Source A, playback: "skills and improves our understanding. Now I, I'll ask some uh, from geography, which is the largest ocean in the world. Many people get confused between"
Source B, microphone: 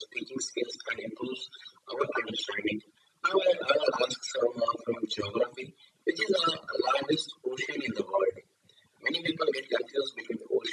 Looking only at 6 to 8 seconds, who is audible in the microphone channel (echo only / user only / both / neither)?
echo only